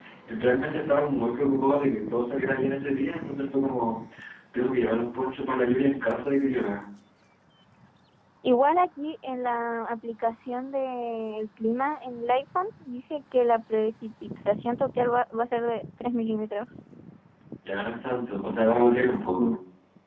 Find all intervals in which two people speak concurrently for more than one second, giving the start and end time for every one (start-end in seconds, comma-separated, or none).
none